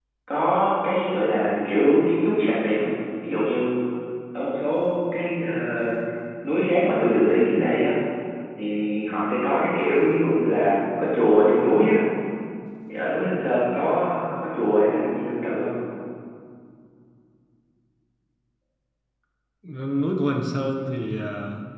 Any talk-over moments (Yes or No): No